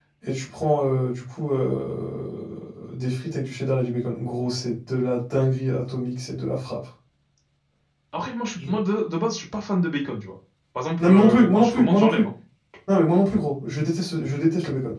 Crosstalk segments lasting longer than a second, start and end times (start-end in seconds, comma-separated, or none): 11.0-12.2